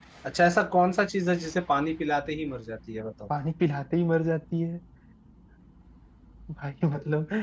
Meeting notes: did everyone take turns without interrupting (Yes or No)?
Yes